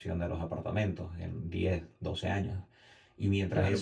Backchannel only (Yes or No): No